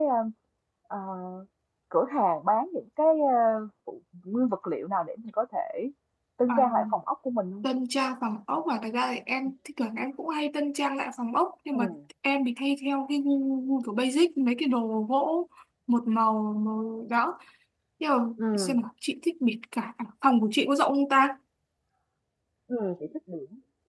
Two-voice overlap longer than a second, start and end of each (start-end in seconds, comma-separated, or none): none